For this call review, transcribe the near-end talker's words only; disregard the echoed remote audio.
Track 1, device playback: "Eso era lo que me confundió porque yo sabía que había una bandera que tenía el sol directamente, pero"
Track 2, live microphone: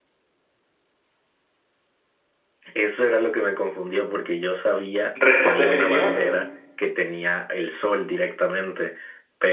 respuesta definitiva.

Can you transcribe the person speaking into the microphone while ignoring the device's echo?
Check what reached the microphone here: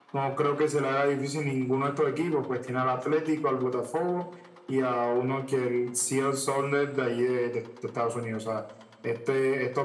none

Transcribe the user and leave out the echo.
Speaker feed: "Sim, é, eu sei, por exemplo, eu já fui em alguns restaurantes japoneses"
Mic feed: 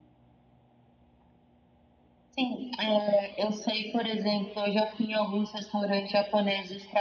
none

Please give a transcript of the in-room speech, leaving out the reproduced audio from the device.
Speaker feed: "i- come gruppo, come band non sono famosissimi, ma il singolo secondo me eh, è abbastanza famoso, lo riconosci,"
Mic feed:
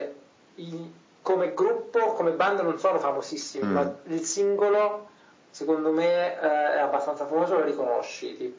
Mm.

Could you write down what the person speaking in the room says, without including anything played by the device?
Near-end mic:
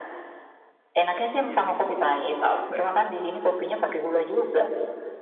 Iya sih. Capek.

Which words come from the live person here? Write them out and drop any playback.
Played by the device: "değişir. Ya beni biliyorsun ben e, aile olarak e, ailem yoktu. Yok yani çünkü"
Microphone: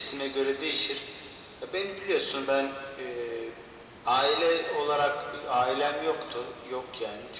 none

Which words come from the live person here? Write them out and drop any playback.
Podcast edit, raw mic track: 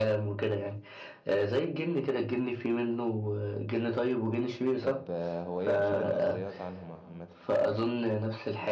طب آه، هو ايه اشهر النظريات عنهم عامه

